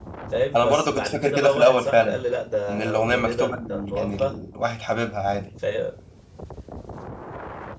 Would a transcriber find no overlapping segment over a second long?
No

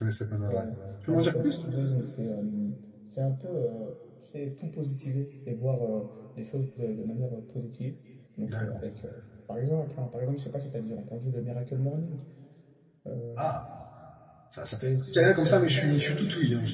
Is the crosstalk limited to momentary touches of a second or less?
No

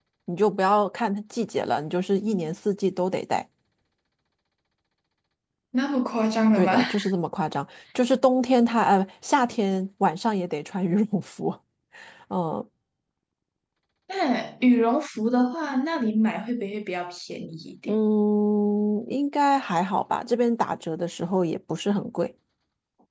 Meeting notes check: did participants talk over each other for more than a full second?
No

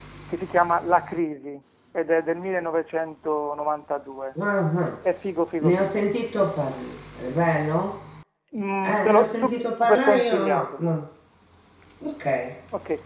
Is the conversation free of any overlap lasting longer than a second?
No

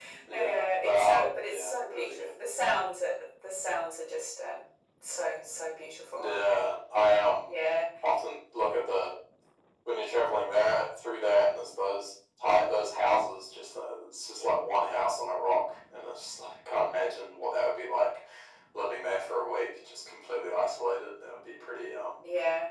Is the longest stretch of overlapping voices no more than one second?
No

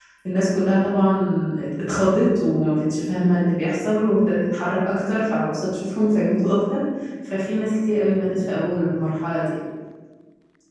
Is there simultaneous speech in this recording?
No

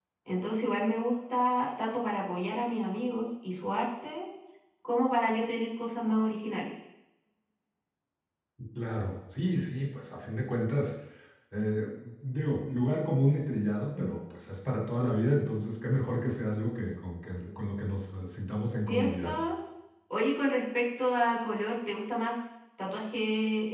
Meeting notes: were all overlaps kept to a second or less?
Yes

